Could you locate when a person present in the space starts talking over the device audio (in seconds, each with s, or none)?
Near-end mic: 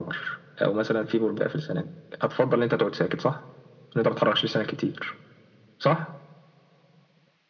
none